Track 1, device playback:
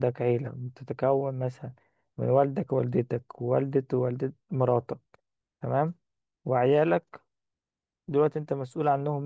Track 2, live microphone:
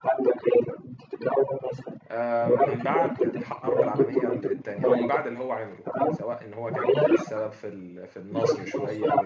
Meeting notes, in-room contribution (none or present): present